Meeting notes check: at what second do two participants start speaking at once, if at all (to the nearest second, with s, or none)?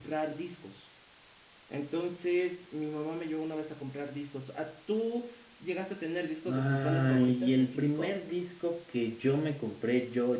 6 s